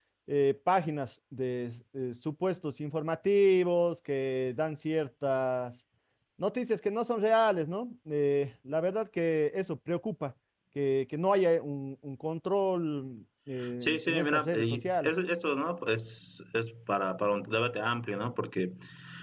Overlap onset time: 14 s

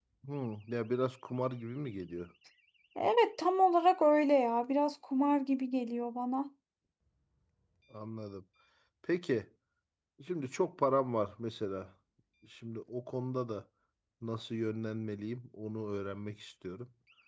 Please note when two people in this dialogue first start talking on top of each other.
none

